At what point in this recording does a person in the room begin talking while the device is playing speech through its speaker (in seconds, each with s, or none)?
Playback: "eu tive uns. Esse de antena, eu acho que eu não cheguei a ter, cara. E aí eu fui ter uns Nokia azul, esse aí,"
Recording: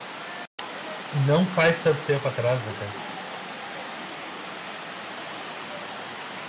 1.1 s